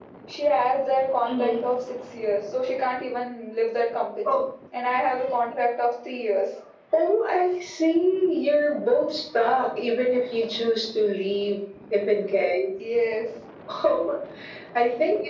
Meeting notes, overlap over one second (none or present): none